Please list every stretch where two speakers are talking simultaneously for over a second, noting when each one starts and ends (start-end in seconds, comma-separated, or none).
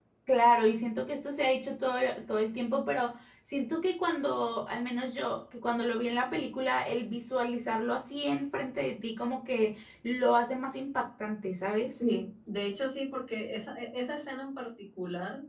none